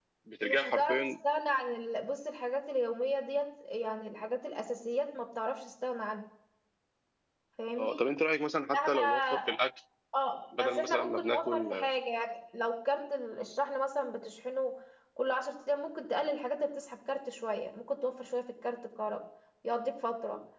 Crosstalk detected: Yes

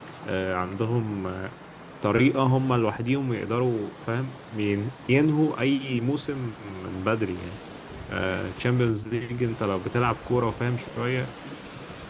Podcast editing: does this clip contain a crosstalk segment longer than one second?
No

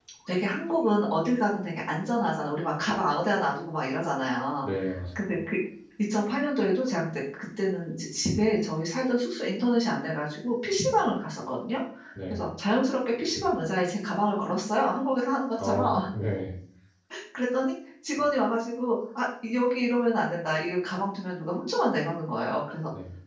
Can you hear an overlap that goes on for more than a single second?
No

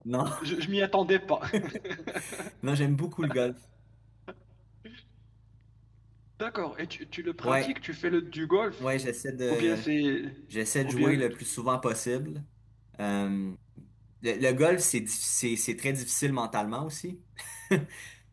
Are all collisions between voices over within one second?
Yes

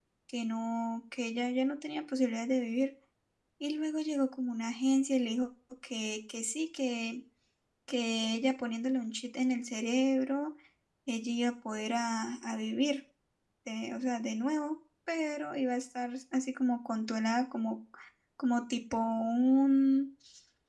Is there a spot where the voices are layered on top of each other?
No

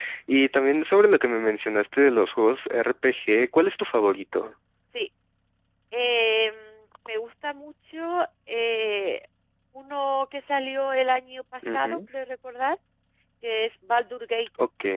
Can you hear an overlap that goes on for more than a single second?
No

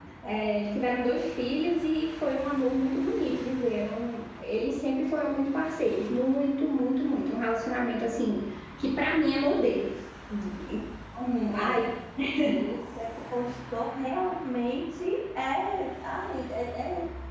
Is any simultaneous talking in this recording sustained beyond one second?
No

